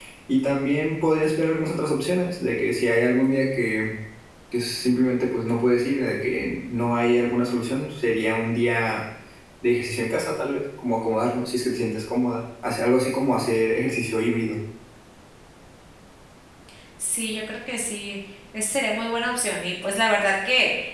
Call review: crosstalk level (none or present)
none